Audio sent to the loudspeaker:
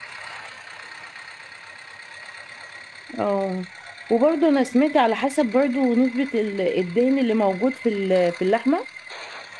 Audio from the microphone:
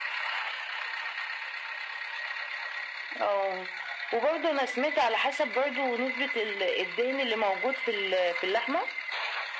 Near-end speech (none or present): none